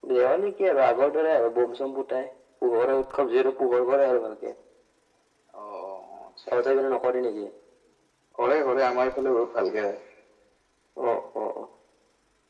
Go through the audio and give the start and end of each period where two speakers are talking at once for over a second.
none

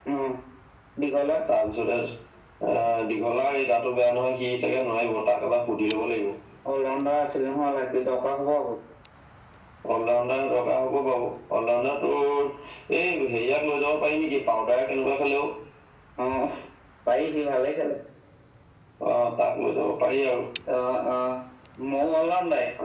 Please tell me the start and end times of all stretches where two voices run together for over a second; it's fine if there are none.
none

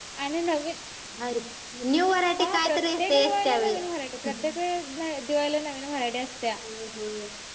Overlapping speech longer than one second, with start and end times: 2.4-3.7

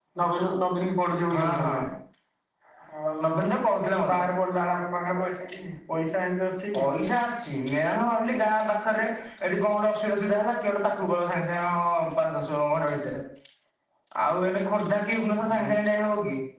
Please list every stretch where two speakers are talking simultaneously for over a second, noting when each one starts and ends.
none

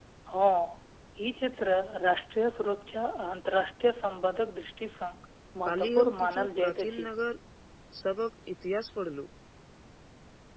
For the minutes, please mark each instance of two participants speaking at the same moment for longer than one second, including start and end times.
5.7-7.0

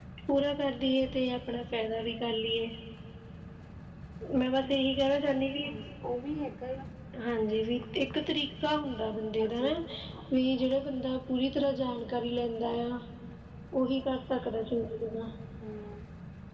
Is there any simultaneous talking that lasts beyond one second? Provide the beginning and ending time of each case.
none

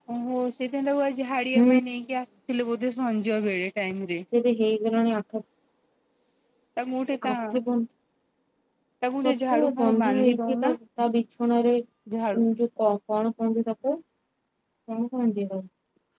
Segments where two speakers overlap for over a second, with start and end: 9.5-10.8

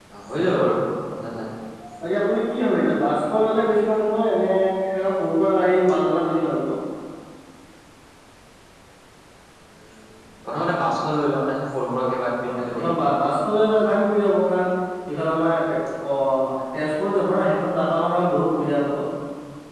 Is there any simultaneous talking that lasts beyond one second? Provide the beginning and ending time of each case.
none

